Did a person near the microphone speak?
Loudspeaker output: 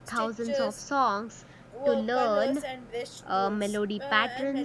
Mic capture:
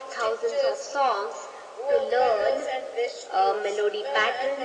No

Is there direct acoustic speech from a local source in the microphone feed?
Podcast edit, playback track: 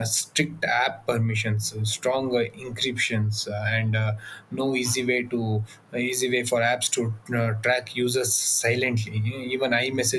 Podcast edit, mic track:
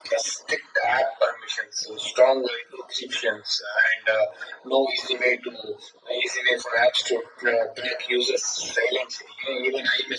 No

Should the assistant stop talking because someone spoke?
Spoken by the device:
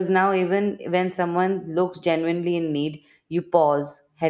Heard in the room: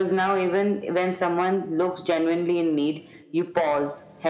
No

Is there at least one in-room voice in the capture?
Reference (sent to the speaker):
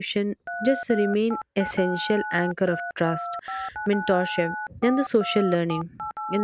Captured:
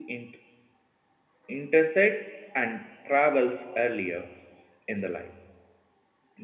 Yes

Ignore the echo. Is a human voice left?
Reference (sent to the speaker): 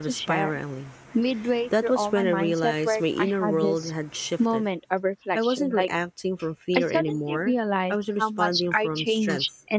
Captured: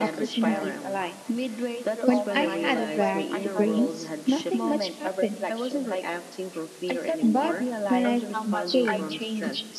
Yes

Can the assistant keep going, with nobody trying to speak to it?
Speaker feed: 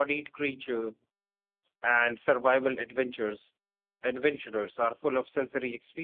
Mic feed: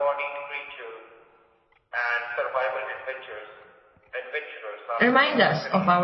No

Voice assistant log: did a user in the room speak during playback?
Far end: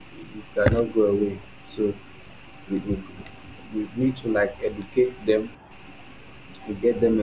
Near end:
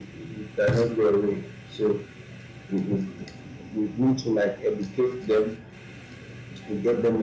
No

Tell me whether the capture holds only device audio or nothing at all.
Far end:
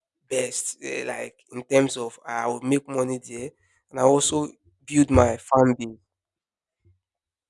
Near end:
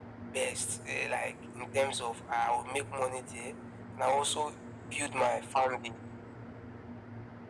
Yes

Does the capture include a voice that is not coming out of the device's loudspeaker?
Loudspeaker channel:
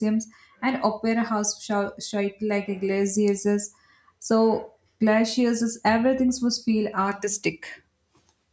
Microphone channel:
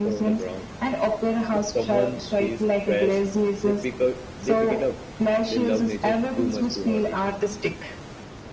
Yes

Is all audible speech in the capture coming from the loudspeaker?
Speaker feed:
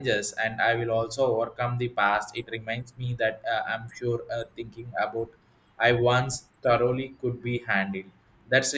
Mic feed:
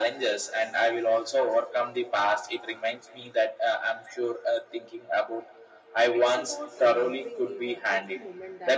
No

